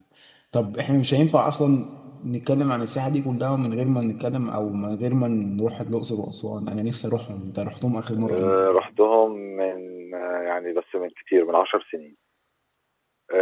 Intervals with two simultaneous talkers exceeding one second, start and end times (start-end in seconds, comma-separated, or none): none